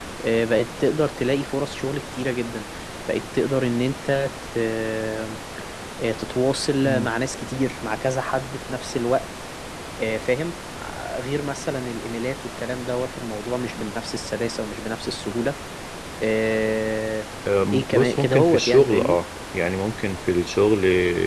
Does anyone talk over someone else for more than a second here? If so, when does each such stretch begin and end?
17.7-19.2

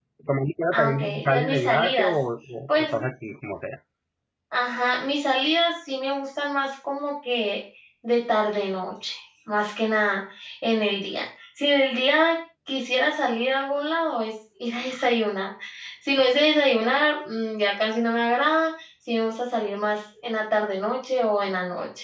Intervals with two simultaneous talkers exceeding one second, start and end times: 0.7-2.1

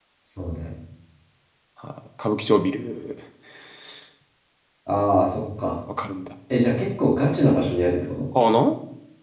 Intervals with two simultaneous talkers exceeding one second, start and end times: none

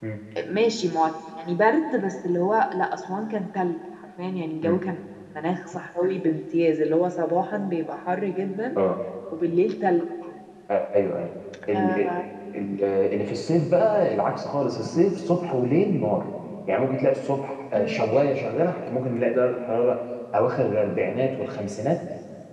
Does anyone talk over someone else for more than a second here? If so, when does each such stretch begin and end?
none

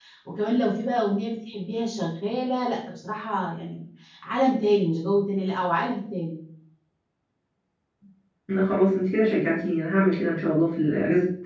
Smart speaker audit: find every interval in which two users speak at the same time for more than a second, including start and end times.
none

